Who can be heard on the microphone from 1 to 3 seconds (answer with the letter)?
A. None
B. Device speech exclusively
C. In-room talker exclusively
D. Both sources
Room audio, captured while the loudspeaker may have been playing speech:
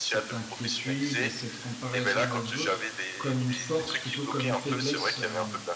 D